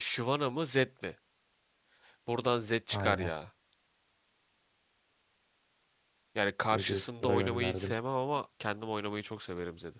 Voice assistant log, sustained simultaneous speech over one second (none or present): present